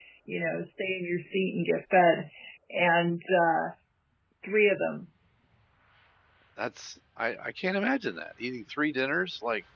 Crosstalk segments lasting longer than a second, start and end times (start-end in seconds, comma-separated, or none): none